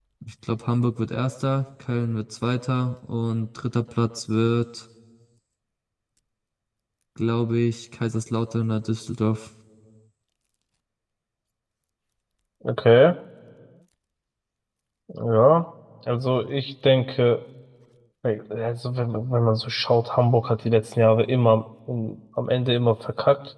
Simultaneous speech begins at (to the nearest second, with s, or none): none